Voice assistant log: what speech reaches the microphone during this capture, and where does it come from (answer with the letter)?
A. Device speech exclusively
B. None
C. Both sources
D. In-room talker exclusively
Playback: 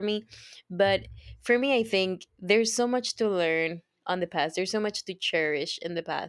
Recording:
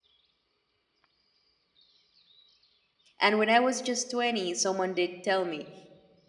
D